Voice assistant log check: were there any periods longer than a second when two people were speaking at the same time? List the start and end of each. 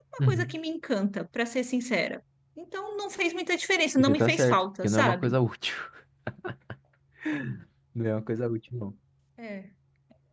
4.0-5.3

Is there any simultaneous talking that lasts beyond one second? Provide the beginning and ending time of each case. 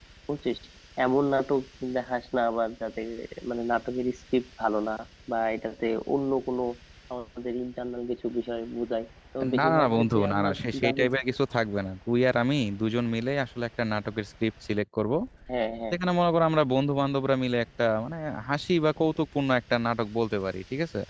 9.6-11.1

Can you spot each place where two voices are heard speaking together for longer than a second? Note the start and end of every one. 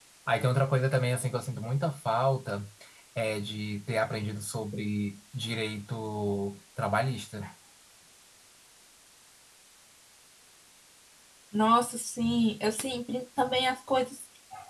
none

